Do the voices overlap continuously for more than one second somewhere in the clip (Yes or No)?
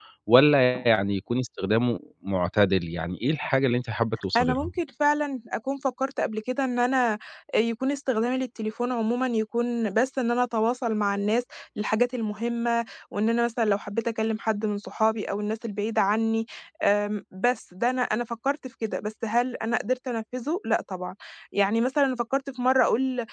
No